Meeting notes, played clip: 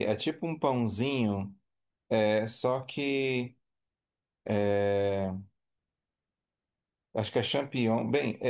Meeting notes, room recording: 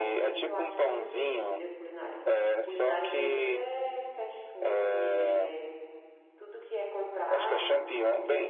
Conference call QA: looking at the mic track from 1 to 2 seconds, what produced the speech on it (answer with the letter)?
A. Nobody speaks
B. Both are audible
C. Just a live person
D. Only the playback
B